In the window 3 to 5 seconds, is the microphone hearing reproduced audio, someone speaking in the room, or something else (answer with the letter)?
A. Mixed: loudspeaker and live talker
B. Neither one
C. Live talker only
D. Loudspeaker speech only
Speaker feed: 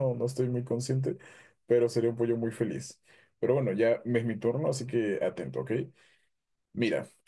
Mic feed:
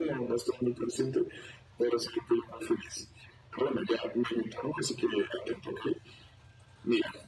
D